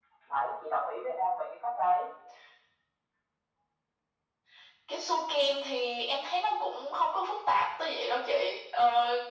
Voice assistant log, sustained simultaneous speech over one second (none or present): none